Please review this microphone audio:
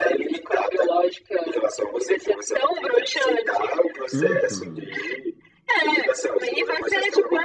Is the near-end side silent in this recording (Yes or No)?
No